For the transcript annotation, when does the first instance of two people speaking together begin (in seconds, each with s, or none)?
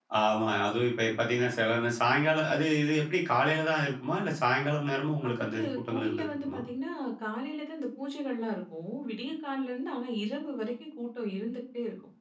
5.2 s